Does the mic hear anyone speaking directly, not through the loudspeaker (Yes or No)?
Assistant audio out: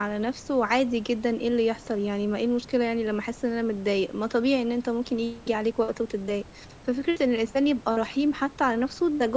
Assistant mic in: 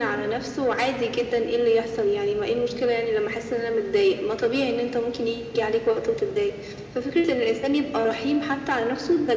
No